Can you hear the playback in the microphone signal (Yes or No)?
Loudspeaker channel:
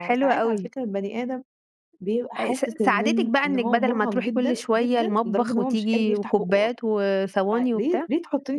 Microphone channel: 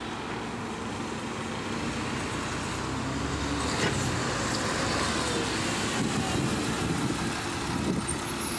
No